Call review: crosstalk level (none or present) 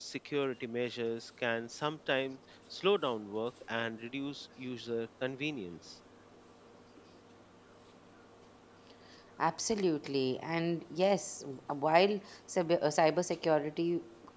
none